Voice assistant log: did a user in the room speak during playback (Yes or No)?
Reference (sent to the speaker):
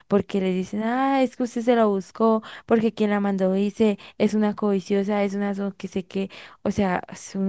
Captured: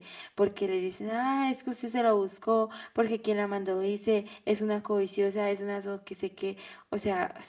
No